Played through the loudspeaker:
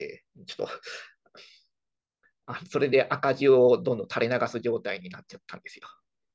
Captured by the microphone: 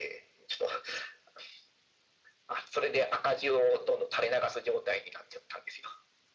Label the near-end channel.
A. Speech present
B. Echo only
B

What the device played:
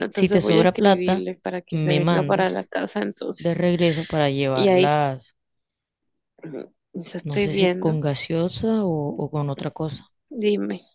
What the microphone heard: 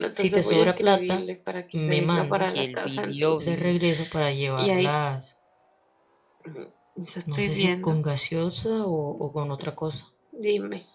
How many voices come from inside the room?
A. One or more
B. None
A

